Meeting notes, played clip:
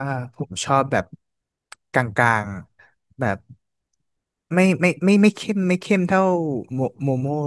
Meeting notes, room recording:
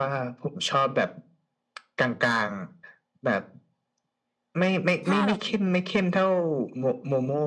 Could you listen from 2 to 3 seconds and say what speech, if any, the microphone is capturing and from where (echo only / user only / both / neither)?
echo only